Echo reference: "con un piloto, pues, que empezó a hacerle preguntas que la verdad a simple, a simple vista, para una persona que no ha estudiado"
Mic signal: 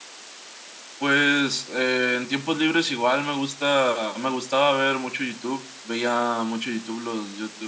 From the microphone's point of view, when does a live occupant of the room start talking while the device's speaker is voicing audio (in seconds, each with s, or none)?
1.0 s